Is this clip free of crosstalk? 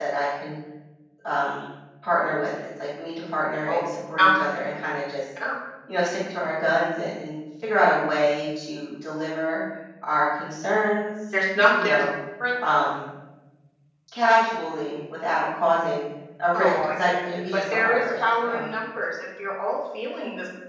No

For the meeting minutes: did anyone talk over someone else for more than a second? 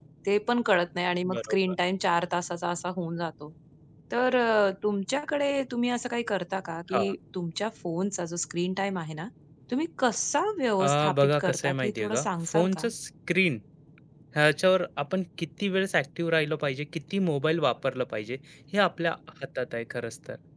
Yes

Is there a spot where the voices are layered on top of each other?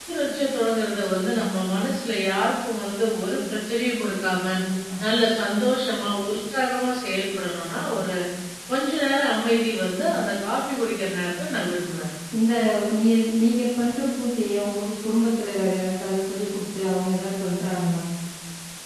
No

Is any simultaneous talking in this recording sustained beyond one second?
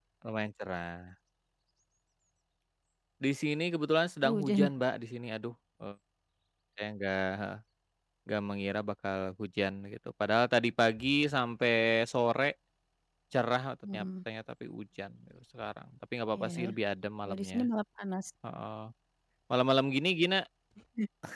No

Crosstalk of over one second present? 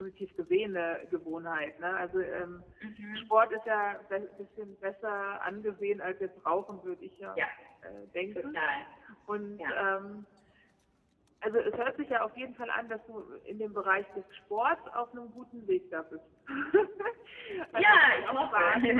Yes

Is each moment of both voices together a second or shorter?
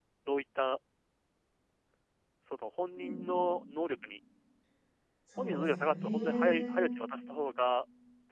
No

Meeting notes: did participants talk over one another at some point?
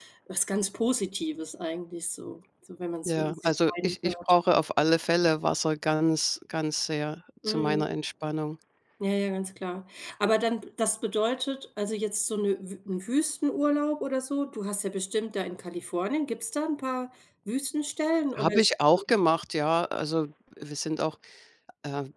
Yes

